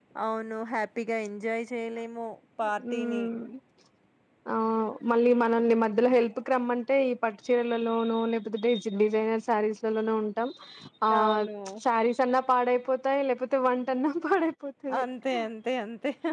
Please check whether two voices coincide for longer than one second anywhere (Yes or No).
No